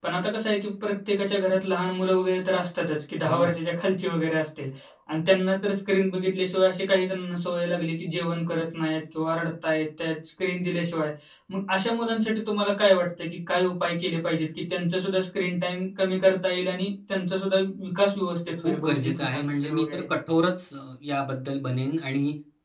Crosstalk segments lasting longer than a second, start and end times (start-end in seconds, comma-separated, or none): 18.6-20.0